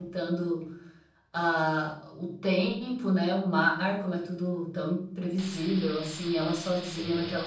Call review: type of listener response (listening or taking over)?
listening